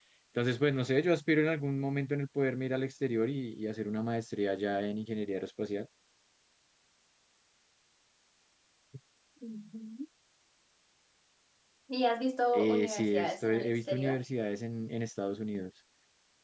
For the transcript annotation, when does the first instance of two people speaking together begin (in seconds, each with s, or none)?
12.5 s